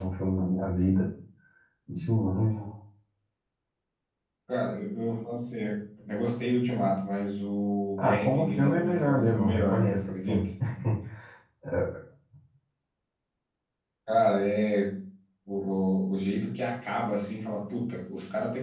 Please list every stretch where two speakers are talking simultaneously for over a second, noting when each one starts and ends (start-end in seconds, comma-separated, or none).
8.0-10.4